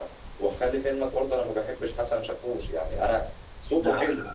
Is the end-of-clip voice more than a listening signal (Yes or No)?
No